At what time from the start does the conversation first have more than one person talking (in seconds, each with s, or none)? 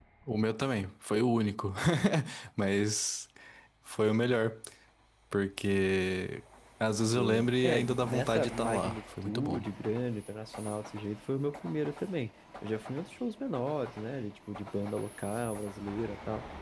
7.2 s